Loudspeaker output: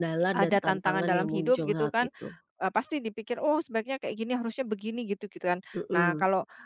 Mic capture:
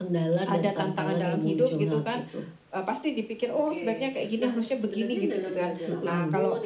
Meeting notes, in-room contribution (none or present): present